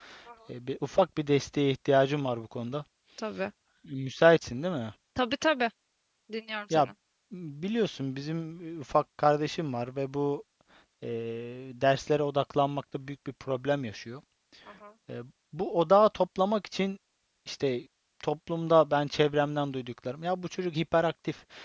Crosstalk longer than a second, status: none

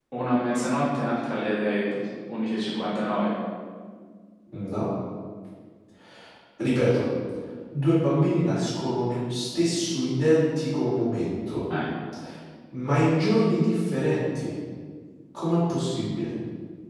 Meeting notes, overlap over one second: none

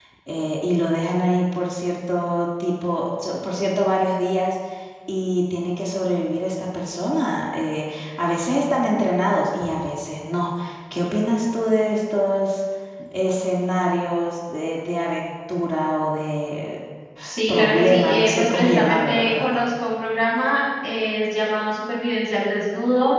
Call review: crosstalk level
present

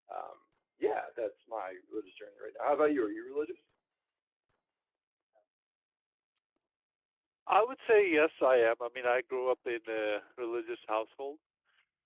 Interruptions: none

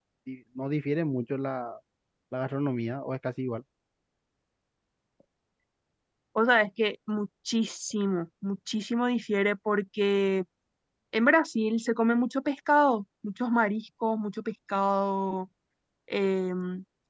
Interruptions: none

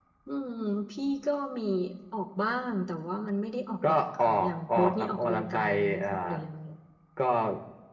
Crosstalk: present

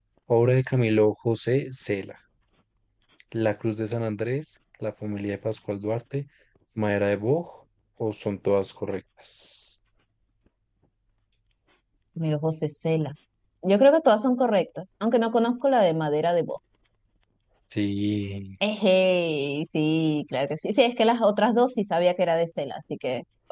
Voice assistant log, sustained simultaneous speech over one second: none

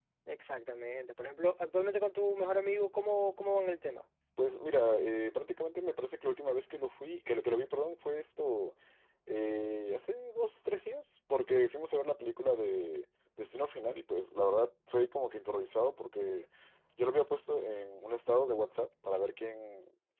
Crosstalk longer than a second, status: none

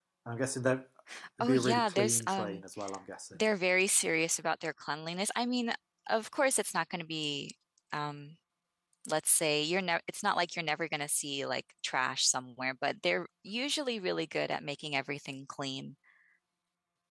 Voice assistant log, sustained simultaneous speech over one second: present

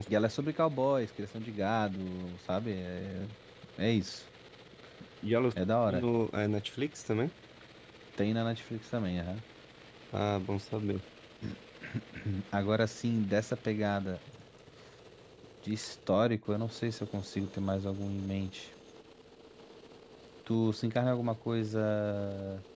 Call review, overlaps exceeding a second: none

